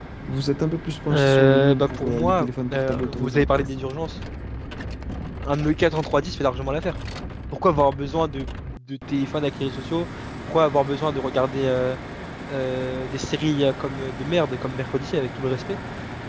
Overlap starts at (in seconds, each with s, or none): 1.1 s